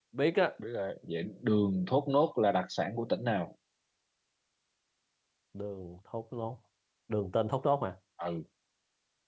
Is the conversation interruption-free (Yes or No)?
Yes